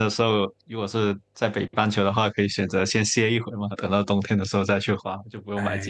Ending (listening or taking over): taking over